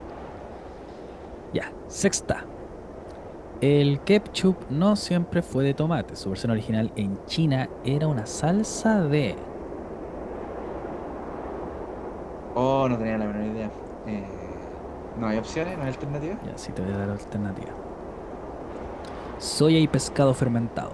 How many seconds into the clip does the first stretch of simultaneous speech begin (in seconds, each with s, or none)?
none